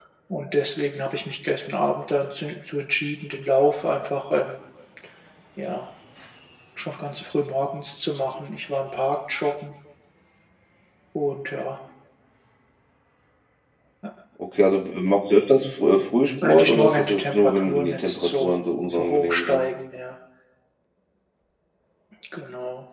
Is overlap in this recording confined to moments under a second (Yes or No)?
No